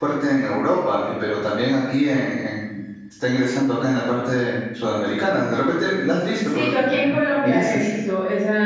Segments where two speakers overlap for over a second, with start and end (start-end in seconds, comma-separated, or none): 6.4-7.9